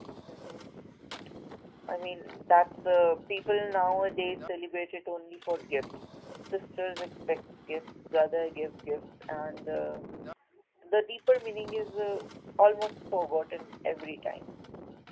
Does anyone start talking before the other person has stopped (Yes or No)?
No